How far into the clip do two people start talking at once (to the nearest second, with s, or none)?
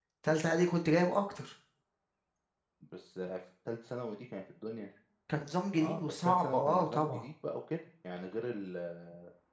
6 s